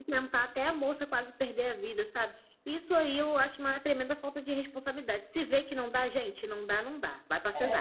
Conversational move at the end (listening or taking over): taking over